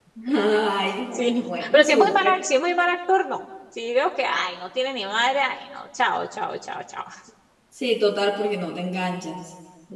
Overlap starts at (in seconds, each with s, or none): 1.1 s